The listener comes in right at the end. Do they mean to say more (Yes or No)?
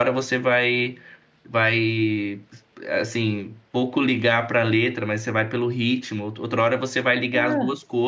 No